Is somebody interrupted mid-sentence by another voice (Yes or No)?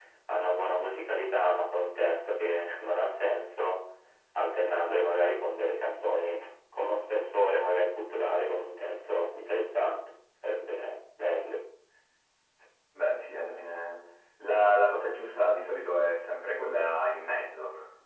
No